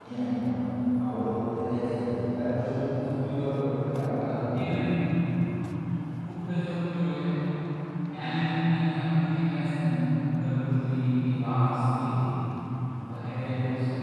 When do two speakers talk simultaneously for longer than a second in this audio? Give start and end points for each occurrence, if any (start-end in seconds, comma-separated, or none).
none